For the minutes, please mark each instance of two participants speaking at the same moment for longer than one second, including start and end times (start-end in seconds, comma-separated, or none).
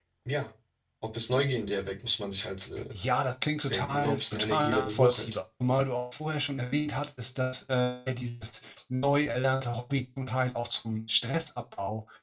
3.7-5.4